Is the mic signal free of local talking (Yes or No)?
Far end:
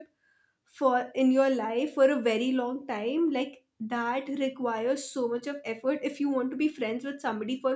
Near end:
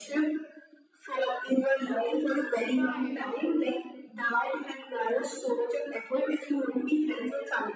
No